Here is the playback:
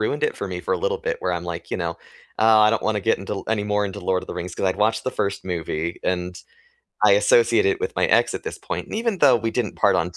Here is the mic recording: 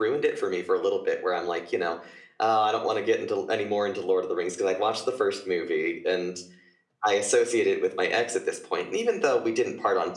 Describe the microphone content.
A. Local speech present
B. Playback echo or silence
B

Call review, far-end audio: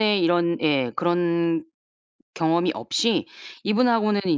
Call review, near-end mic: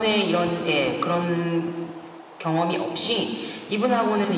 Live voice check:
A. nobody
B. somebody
A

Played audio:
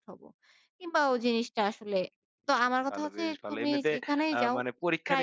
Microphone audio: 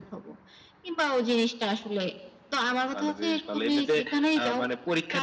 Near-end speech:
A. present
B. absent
B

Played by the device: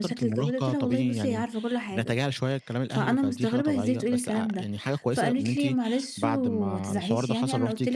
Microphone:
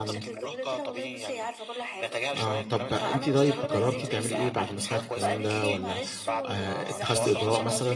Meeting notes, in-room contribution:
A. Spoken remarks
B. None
A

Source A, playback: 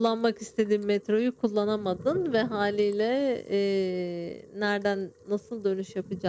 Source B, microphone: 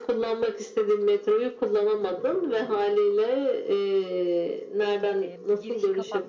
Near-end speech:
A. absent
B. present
B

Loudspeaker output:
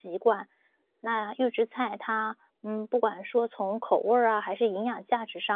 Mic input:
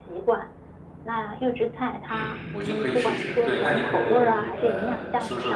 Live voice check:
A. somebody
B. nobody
A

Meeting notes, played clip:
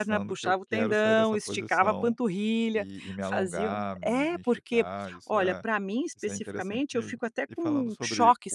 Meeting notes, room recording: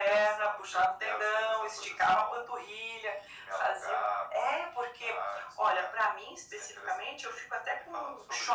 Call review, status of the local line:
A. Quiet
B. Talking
A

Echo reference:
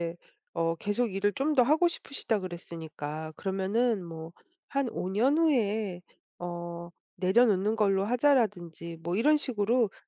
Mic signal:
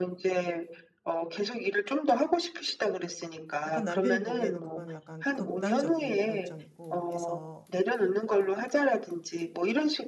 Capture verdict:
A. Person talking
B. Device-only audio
A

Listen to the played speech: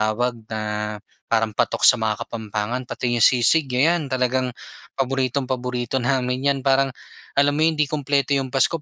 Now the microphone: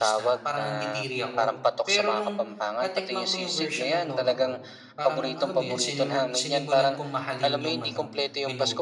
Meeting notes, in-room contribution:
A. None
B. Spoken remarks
B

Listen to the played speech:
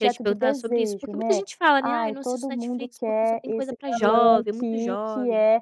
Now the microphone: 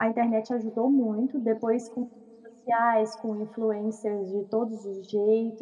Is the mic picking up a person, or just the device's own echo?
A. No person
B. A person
B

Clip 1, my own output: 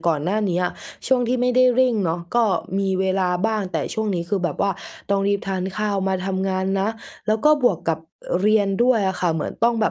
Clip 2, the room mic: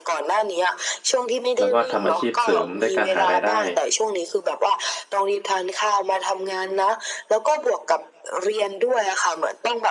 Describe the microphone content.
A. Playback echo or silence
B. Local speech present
B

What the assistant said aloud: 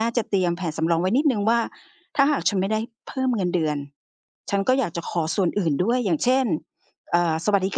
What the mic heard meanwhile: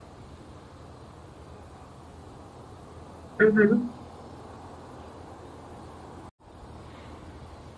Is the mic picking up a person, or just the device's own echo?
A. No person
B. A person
B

